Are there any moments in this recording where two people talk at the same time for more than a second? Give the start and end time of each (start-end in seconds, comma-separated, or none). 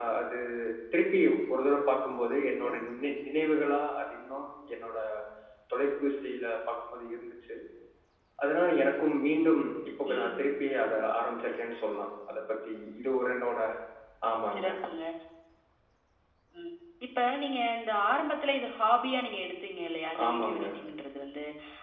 none